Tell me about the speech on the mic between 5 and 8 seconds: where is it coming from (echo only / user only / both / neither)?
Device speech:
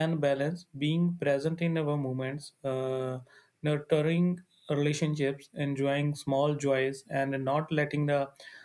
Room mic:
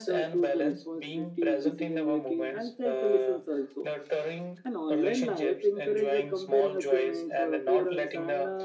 both